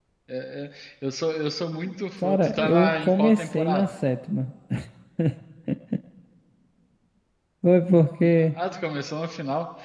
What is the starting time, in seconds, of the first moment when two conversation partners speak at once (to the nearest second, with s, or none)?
2 s